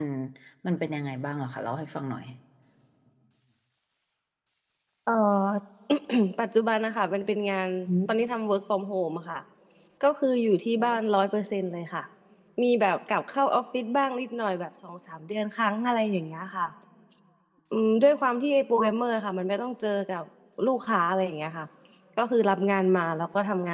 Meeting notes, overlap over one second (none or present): none